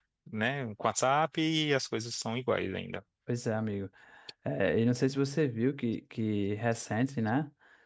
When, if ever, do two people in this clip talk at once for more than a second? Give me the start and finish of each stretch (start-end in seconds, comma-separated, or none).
none